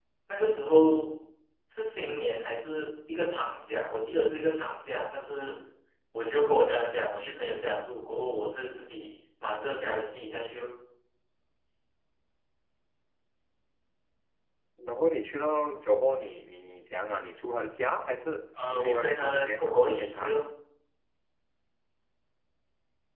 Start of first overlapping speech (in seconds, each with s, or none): 18.5 s